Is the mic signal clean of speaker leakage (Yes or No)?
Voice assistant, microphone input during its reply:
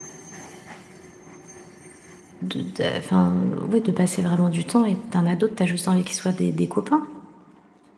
Yes